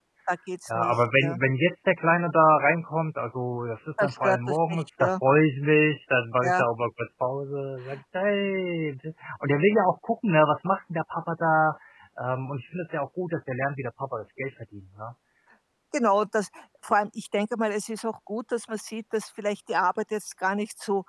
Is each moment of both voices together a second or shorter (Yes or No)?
No